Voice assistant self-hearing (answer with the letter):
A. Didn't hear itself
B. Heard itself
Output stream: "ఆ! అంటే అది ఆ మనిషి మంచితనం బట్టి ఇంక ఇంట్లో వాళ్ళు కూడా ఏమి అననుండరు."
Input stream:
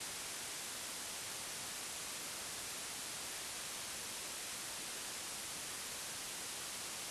A